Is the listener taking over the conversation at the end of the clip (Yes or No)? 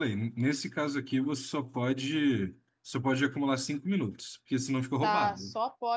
Yes